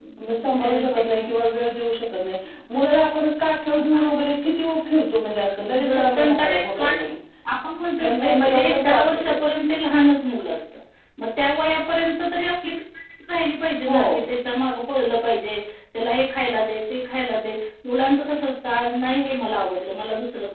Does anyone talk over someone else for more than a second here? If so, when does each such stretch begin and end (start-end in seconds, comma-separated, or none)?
5.9-7.1, 8.0-9.4